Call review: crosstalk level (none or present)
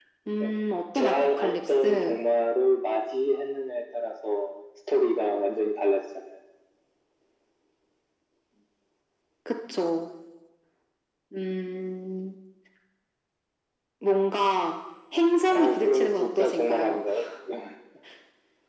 present